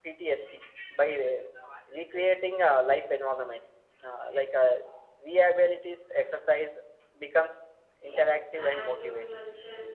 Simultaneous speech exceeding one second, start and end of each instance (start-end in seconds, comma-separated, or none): 8.0-9.4